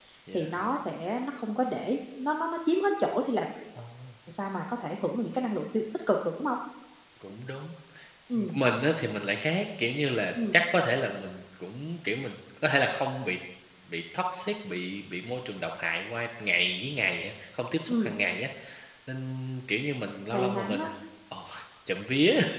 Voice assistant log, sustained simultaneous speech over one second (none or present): none